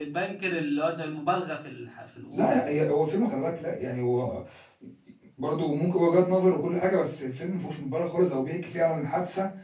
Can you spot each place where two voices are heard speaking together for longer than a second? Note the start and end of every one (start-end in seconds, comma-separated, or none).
none